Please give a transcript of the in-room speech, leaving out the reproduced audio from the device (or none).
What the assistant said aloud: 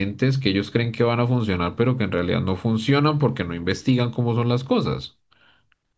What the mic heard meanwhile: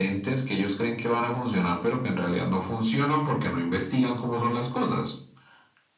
none